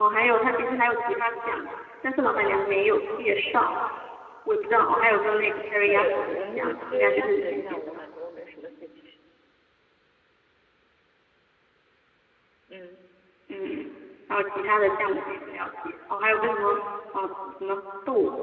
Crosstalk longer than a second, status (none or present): present